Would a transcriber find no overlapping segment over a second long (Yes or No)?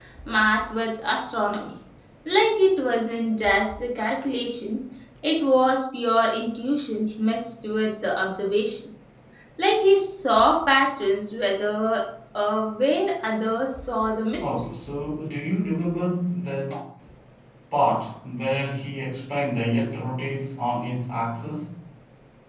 Yes